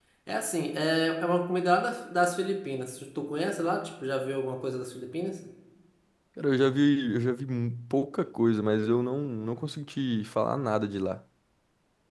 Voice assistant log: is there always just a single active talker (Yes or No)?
Yes